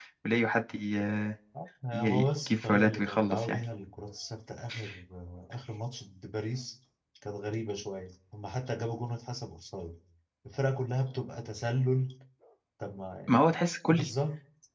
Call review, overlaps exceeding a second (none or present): present